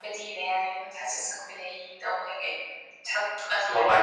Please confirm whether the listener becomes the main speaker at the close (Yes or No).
No